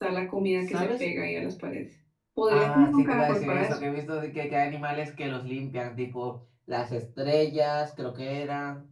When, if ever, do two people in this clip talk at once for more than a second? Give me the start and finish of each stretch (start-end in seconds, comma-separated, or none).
2.5-3.8